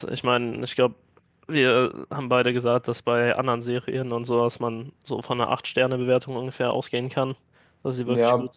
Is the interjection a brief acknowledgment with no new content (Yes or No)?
No